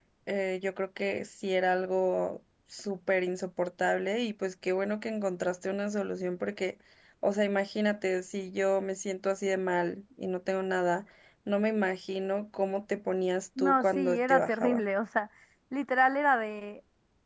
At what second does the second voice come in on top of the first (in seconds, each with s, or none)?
13.6 s